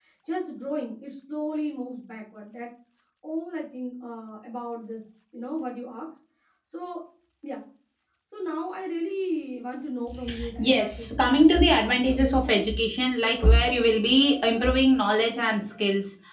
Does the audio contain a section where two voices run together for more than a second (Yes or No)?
Yes